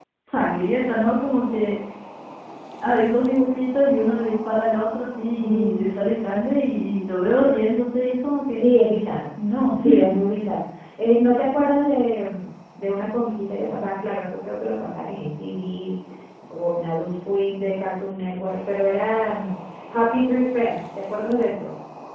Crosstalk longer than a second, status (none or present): none